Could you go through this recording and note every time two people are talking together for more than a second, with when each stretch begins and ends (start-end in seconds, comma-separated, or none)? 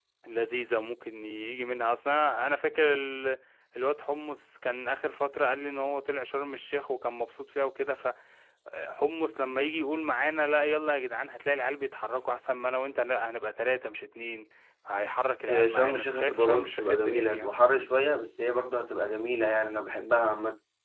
15.5-17.5